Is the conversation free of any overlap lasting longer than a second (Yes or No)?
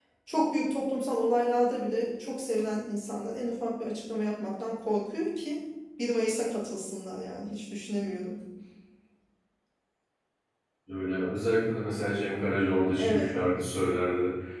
Yes